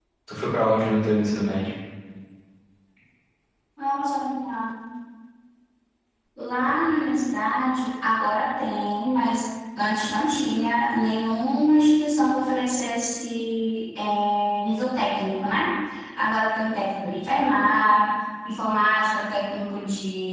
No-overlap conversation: Yes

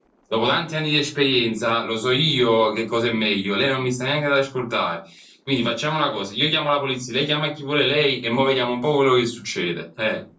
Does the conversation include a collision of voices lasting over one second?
No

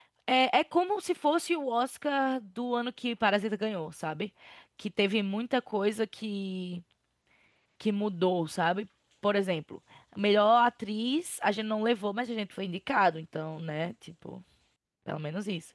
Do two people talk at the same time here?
No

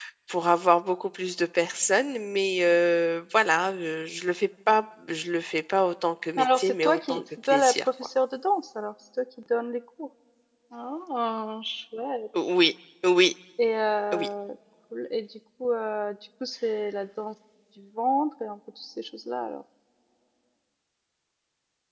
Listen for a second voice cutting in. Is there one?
Yes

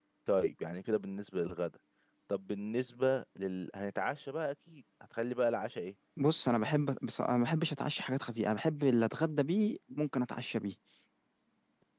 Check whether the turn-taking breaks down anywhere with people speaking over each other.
No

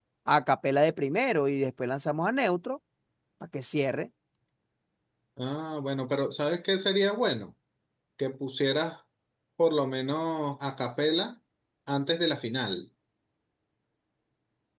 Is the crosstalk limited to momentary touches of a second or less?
Yes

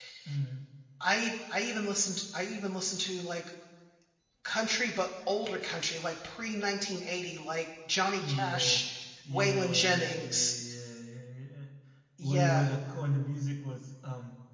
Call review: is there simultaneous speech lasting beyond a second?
Yes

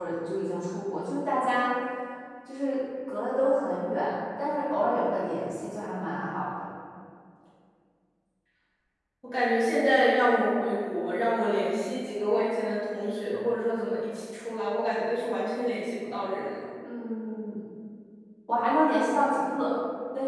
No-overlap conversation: Yes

